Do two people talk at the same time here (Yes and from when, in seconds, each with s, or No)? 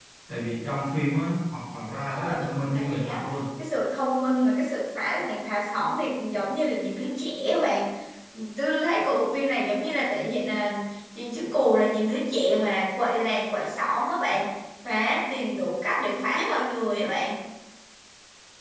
Yes, from 2.1 s